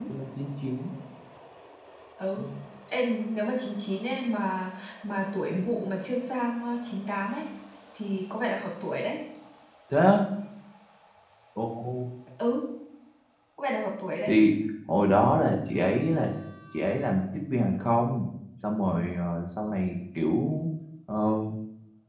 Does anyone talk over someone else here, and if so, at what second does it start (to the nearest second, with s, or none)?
none